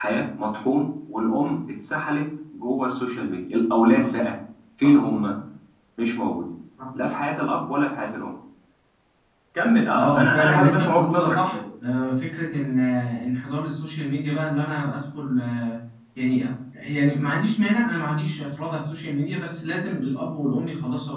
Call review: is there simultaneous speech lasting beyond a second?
Yes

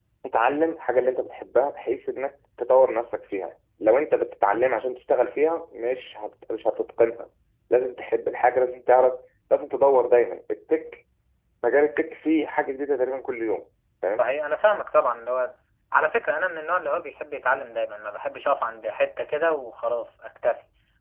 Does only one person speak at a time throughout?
Yes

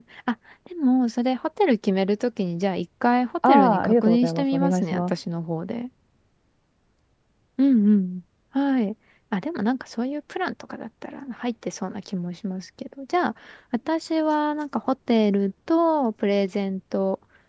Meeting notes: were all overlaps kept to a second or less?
No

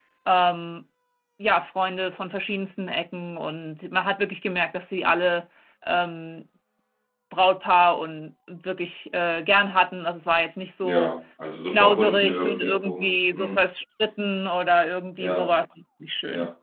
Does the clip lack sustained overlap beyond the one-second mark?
No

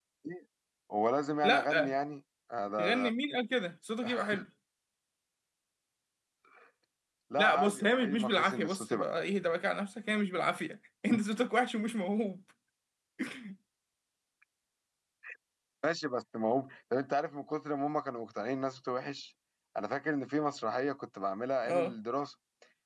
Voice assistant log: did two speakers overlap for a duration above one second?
Yes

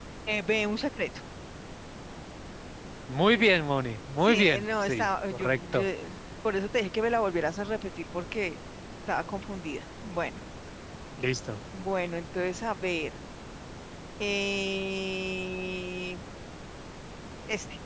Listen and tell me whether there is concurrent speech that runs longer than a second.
Yes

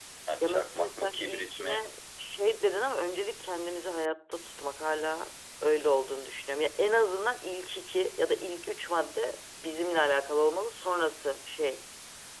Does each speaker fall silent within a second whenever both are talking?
No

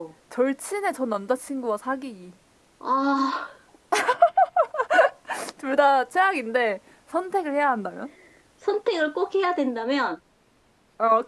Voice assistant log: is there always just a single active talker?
Yes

